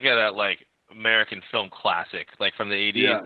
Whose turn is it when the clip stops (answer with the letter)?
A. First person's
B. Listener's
A